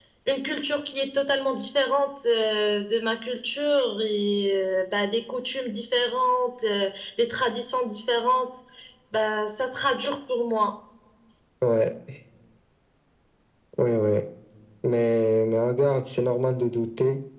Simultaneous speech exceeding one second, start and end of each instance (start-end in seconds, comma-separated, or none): none